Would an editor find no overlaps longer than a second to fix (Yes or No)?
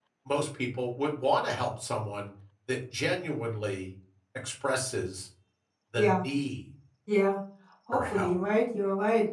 Yes